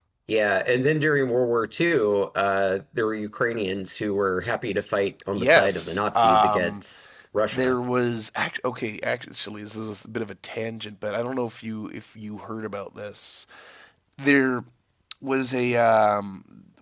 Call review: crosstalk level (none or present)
present